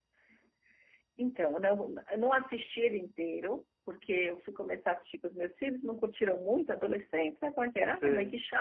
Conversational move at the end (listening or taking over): listening